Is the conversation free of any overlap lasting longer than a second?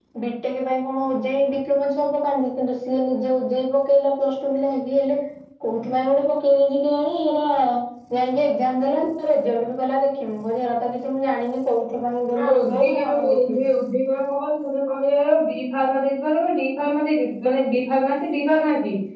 No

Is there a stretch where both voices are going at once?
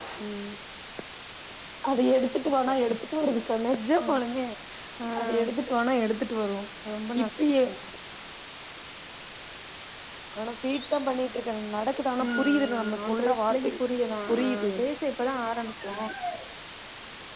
Yes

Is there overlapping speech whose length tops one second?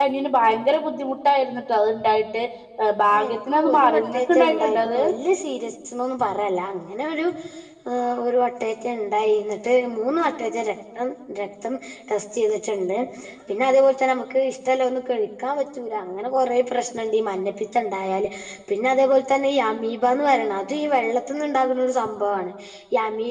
Yes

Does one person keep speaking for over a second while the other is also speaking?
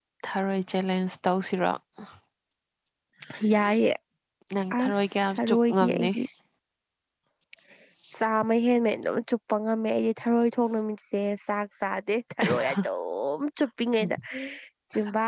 Yes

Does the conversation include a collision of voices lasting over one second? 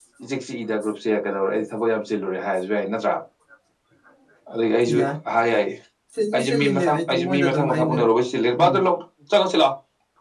Yes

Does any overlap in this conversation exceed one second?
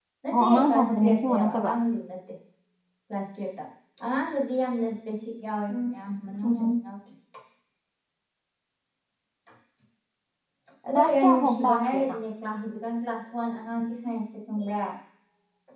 Yes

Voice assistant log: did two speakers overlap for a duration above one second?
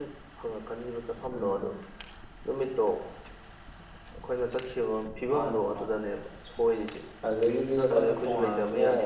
Yes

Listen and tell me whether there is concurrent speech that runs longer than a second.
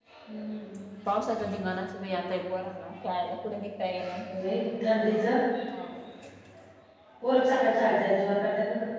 No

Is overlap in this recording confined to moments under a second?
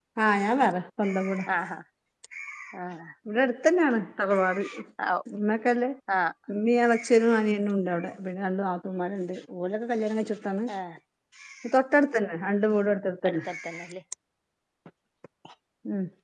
Yes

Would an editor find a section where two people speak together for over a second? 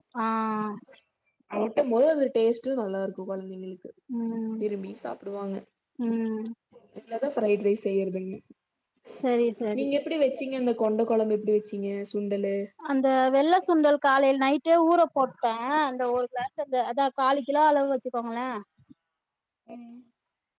No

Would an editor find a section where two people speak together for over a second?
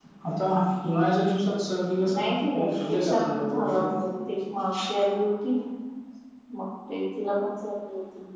Yes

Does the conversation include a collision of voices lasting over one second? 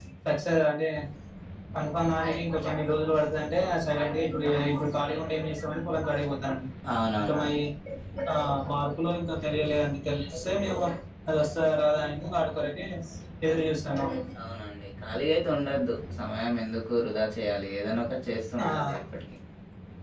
No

